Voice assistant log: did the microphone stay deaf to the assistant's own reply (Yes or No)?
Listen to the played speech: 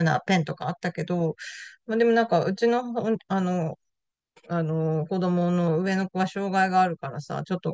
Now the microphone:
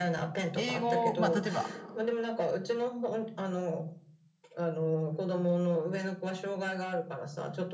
No